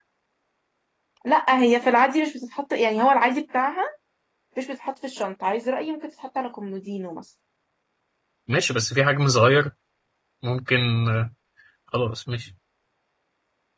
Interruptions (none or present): none